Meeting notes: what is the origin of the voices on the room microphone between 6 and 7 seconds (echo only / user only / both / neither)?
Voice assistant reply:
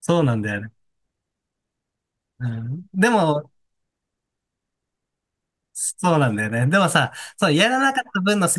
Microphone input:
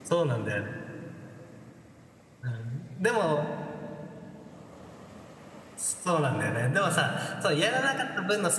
echo only